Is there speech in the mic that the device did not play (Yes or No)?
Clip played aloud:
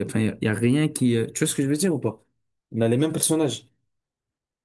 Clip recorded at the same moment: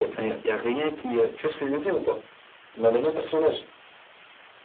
No